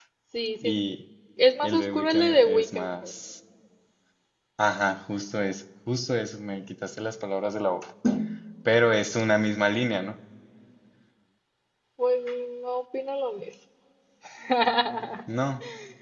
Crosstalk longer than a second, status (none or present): present